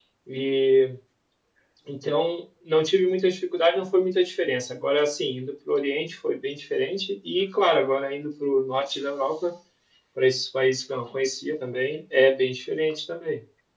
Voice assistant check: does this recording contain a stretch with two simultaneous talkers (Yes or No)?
No